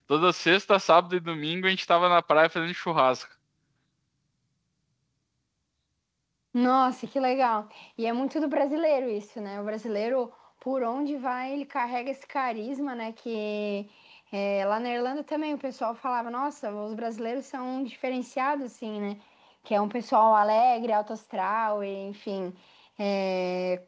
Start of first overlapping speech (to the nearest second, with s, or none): none